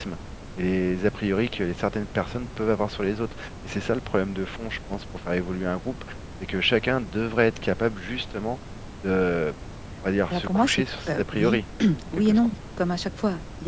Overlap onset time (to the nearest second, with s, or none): 10 s